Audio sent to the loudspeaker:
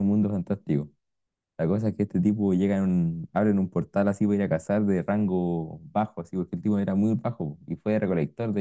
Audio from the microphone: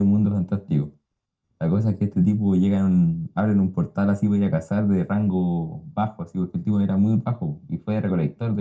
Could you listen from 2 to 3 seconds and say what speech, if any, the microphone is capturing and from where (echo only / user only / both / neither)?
echo only